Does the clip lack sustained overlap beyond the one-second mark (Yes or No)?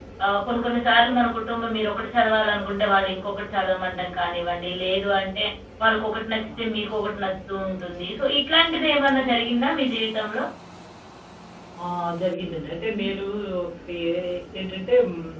Yes